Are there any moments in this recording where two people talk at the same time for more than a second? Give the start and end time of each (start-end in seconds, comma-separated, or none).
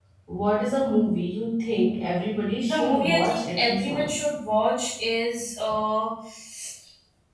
2.7-4.2